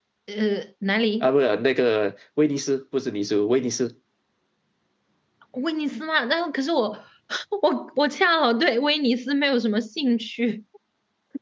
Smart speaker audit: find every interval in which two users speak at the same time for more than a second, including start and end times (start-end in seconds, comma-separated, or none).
none